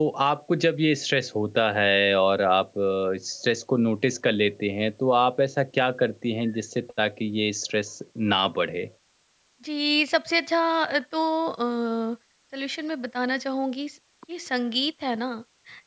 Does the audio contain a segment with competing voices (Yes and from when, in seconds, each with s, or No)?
No